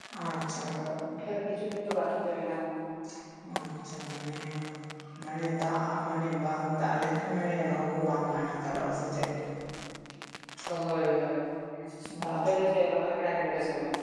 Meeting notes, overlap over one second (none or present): none